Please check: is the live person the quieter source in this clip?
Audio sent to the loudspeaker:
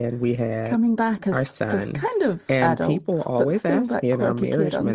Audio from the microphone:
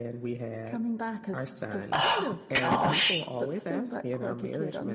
No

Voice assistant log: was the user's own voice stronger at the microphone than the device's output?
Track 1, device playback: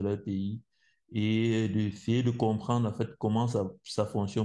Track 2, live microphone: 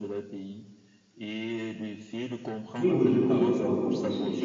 Yes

